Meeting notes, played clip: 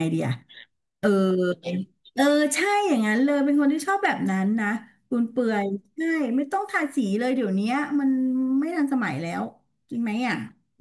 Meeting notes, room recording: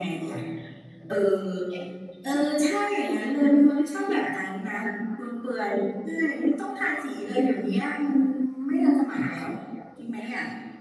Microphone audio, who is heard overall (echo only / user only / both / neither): echo only